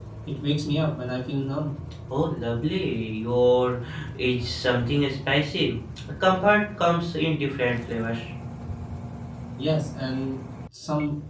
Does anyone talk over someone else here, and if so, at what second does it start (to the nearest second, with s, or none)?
none